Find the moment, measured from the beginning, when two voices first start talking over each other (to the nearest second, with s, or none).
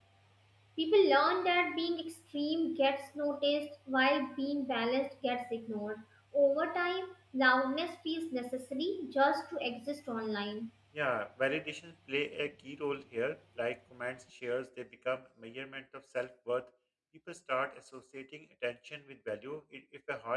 none